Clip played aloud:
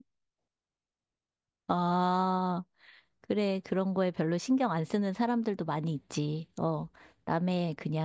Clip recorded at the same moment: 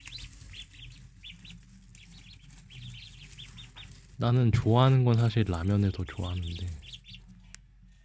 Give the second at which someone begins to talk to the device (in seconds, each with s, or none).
4.2 s